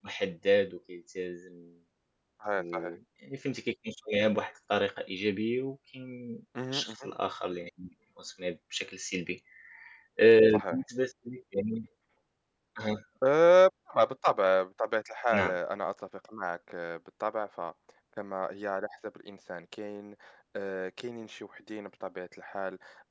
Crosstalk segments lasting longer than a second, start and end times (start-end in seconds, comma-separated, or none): none